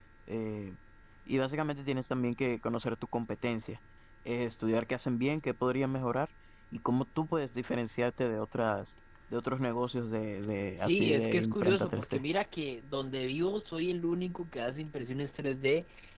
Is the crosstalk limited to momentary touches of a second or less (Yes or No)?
No